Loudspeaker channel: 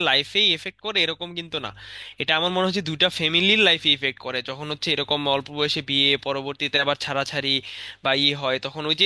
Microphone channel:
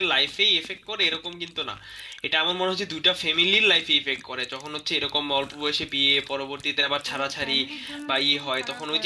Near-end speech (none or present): present